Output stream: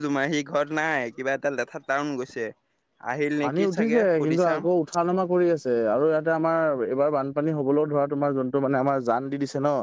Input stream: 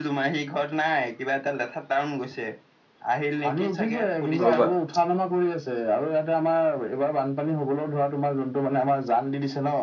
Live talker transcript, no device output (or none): হয় বা